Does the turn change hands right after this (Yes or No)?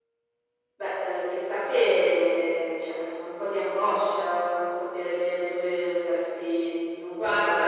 Yes